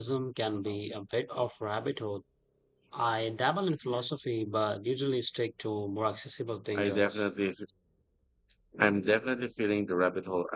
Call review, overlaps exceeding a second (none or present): none